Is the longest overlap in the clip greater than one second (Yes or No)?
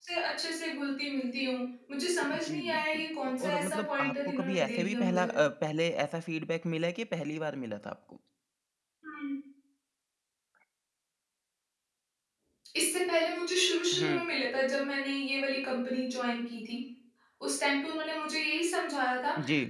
Yes